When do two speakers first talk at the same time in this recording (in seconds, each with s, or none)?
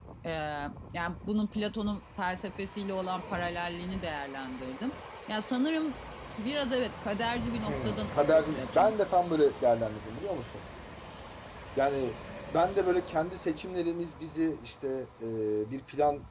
7.7 s